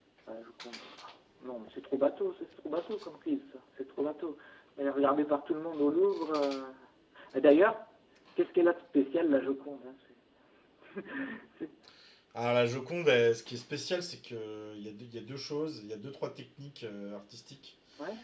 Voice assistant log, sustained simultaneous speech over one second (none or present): none